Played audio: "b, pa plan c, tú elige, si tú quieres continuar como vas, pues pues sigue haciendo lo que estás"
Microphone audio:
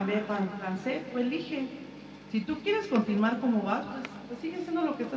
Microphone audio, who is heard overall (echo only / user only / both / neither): echo only